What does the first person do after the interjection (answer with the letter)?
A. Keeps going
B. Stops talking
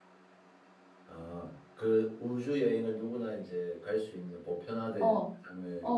B